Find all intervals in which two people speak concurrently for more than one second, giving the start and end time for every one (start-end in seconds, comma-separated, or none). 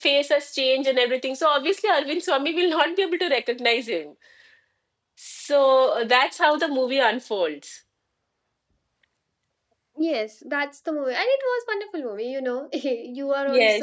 none